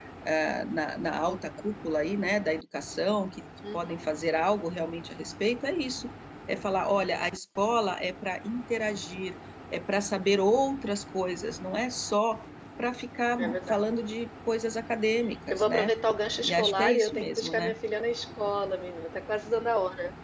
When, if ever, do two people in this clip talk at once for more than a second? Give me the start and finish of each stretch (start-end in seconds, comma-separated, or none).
16.4-17.8